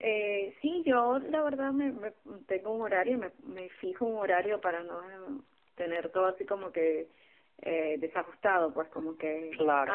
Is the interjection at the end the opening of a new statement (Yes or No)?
No